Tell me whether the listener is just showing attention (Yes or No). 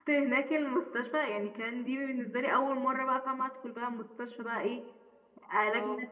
Yes